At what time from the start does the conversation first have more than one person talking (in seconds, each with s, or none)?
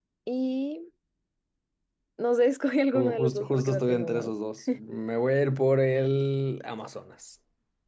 2.9 s